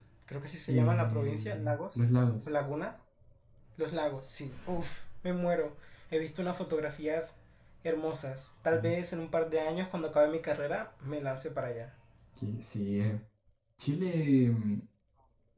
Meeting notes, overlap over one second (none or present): present